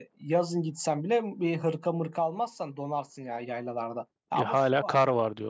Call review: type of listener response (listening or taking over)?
taking over